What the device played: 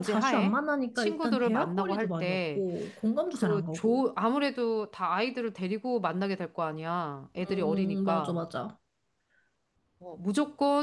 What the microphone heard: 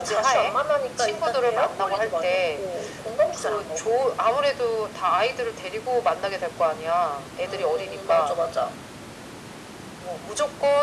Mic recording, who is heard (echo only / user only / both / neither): echo only